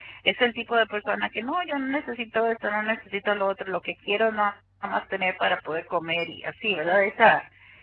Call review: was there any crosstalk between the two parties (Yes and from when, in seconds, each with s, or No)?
No